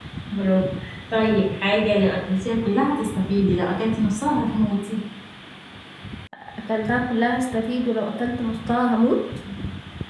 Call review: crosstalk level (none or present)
none